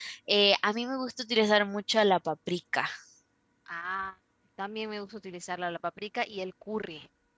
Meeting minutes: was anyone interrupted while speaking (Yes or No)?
No